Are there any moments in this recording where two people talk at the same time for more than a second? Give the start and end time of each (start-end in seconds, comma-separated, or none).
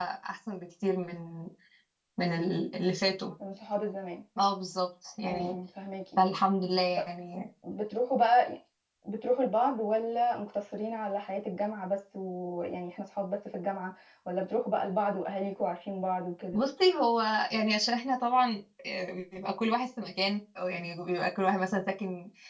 none